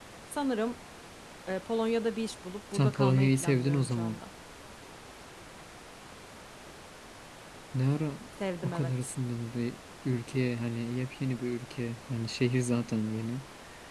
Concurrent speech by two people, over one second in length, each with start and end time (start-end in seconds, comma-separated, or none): 2.7-4.2